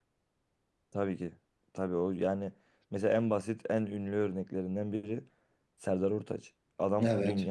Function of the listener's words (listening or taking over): listening